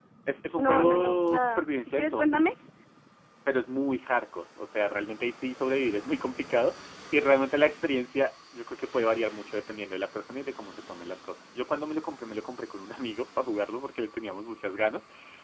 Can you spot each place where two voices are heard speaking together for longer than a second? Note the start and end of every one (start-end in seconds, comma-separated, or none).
0.6-2.5